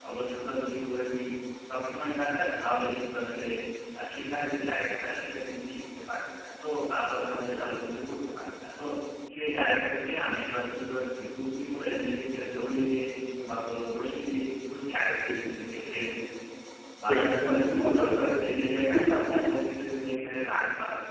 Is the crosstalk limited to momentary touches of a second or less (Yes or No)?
No